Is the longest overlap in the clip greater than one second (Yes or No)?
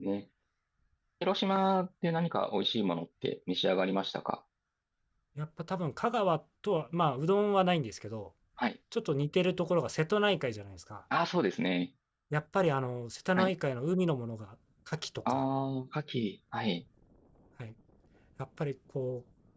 No